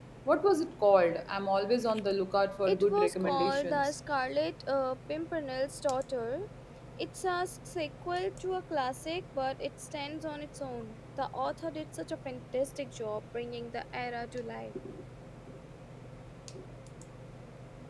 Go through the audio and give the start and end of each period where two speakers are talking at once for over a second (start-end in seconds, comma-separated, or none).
2.7-3.9